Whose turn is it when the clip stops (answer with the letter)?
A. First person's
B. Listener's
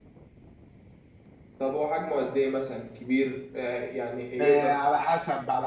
B